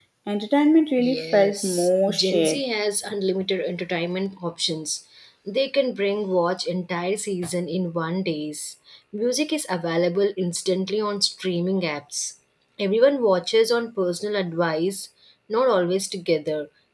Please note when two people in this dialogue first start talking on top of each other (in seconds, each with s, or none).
1.0 s